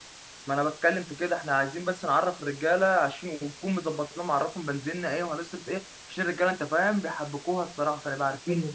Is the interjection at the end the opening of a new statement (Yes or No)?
No